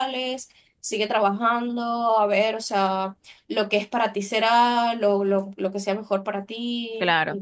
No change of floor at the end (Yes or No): No